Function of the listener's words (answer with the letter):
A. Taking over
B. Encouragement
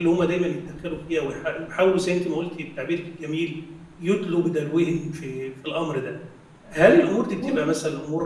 B